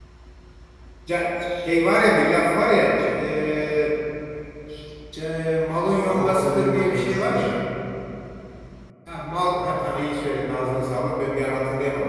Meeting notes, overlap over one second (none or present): present